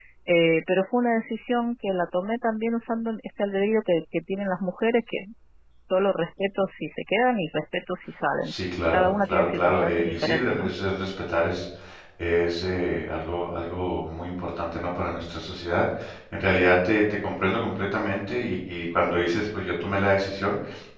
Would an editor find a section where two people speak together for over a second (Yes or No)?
Yes